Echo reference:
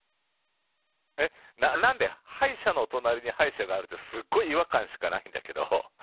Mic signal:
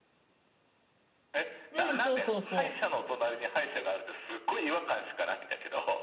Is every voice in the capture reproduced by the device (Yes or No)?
No